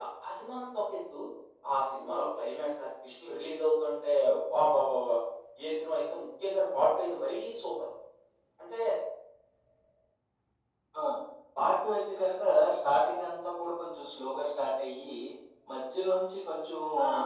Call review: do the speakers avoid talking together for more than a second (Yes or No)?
Yes